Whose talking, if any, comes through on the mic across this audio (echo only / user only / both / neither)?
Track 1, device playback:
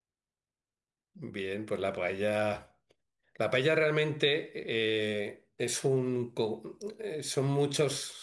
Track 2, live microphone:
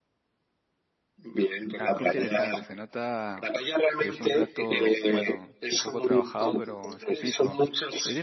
both